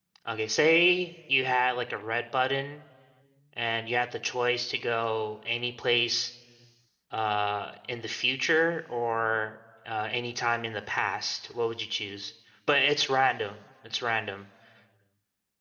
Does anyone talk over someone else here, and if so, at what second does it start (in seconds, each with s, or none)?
none